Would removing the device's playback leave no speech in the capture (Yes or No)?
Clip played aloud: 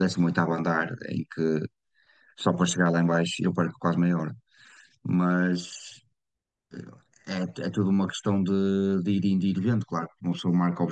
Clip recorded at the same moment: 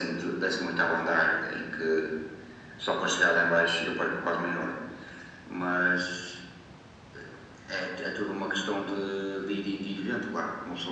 Yes